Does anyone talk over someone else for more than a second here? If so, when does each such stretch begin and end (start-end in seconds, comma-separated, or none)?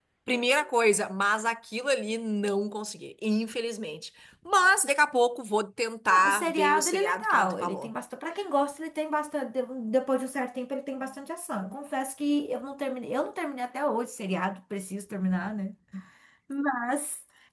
6.1-7.9